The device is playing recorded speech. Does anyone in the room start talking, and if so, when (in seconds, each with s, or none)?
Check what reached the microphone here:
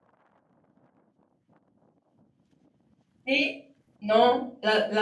3.2 s